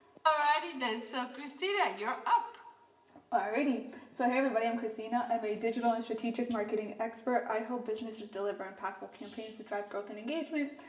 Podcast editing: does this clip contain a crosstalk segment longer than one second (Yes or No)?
No